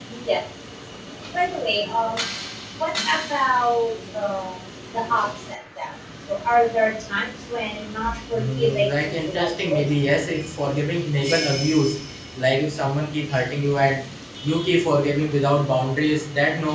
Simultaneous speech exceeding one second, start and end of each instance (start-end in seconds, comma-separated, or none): 8.3-9.8